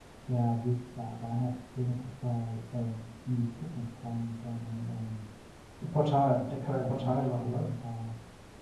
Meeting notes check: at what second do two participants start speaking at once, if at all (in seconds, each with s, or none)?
6.3 s